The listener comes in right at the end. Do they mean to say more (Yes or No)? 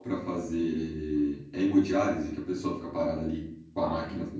No